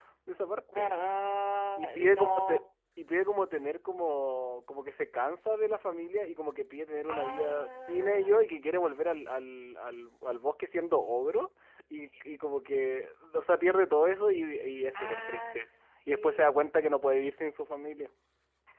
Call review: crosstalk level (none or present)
present